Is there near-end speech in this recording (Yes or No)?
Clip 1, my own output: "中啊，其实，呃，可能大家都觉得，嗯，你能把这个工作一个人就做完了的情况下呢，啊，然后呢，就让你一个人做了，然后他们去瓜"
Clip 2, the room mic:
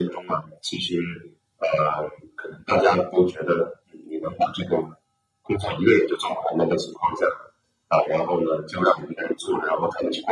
No